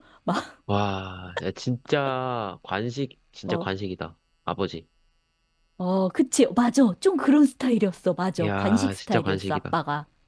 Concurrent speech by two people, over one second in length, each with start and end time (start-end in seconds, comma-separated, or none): 8.4-9.8